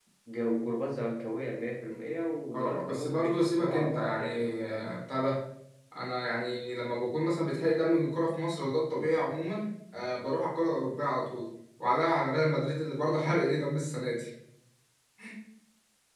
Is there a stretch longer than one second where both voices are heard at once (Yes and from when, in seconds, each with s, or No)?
Yes, from 2.5 s